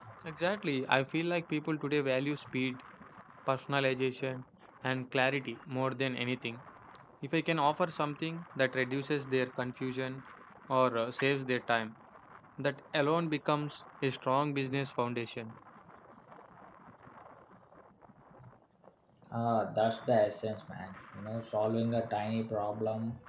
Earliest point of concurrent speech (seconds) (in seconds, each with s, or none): none